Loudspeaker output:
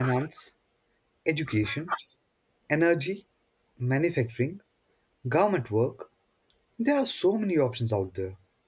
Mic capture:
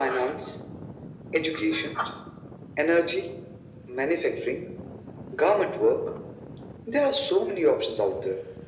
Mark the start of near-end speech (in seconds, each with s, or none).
none